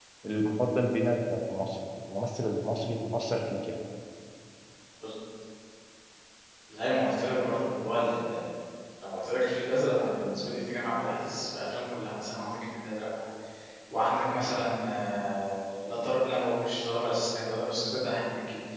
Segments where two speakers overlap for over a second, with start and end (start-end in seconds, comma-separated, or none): none